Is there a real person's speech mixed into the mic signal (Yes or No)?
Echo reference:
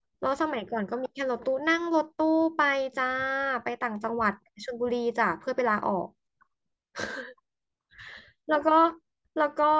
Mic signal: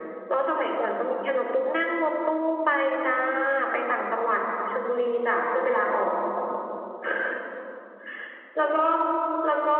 No